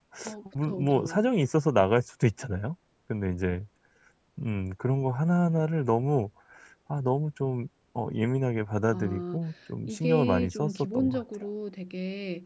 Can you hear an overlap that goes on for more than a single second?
Yes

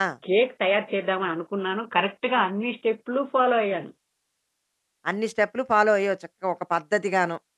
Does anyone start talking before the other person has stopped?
No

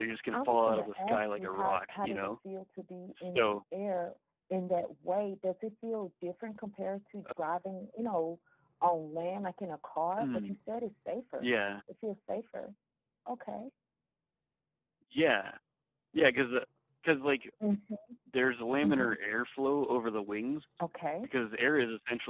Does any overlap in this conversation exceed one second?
Yes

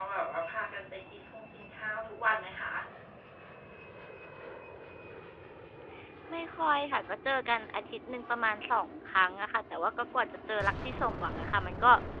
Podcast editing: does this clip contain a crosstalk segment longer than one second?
No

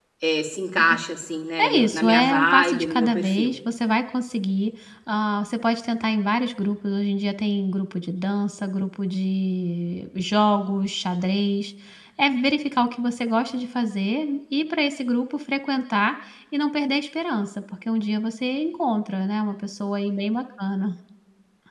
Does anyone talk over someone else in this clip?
Yes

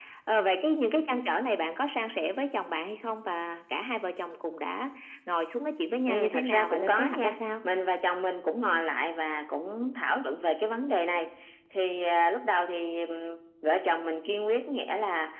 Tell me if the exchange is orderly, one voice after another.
No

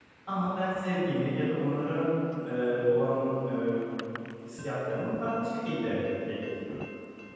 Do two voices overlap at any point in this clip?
No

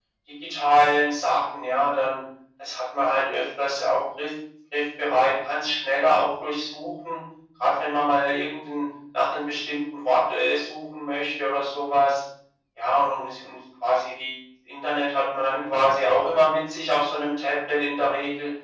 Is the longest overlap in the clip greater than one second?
No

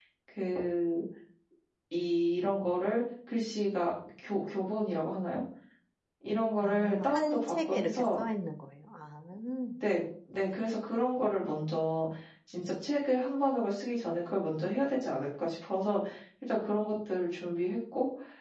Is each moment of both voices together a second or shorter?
No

